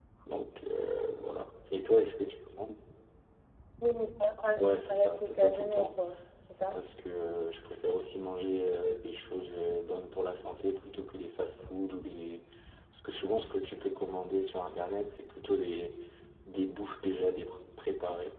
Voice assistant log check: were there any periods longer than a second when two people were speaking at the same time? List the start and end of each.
4.6-6.0

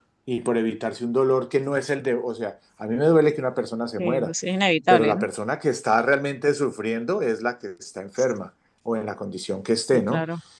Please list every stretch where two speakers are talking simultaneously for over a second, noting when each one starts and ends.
none

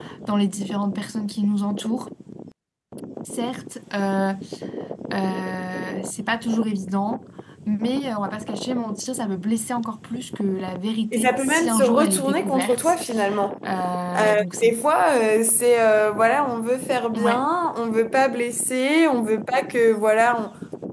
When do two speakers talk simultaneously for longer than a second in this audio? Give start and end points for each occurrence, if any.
11.1-13.0

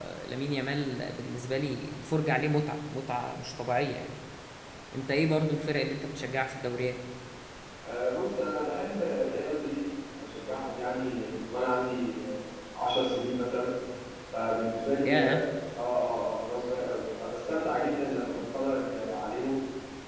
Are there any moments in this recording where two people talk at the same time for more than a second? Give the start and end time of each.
none

